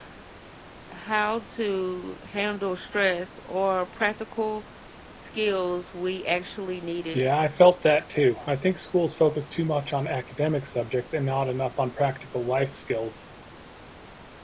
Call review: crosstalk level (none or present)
none